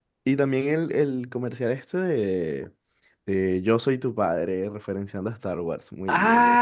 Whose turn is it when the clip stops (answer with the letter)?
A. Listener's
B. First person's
A